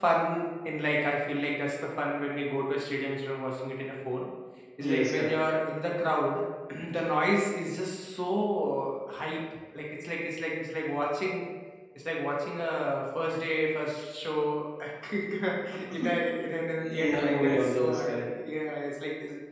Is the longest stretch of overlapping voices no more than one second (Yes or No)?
No